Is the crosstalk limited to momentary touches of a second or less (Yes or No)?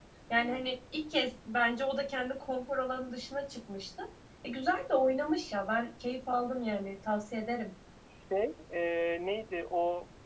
Yes